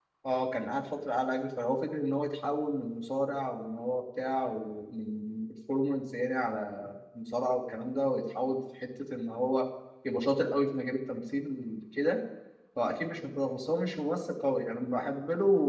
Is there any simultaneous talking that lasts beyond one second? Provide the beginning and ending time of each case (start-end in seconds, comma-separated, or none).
none